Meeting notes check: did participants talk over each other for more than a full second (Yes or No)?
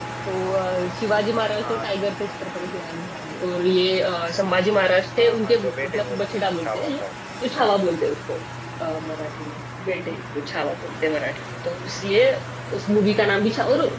Yes